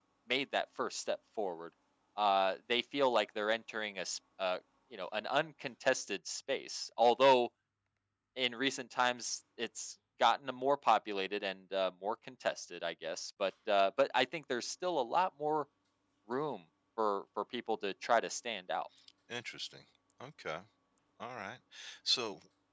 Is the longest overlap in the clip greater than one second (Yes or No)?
No